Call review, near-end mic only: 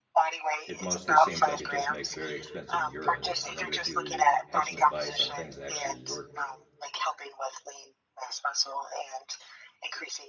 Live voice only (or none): it mostly seems like it just makes very expensive urine. I wonder if you had some advice on things that actually work.